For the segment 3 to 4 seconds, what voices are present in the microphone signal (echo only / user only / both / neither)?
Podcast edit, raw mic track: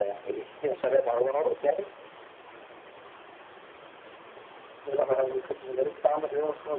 neither